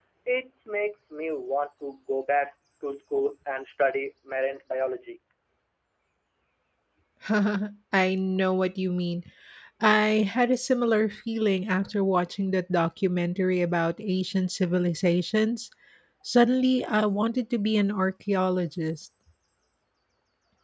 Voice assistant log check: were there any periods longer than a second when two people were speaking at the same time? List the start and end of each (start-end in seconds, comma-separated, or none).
none